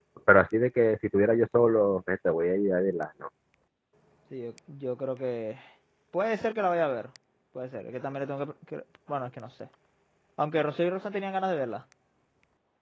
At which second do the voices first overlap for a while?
none

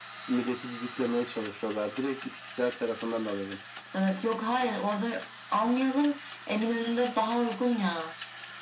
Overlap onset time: none

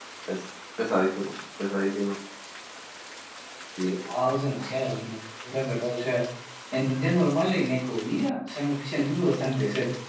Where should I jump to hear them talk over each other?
none

